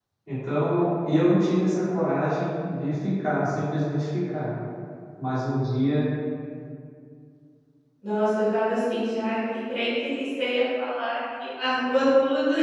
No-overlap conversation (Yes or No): Yes